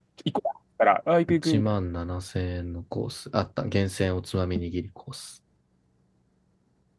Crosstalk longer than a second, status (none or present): none